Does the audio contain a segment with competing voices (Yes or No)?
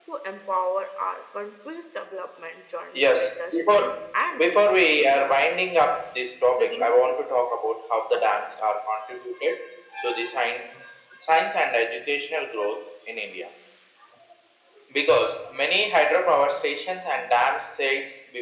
Yes